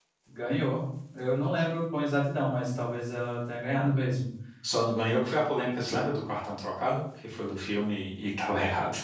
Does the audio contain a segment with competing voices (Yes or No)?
No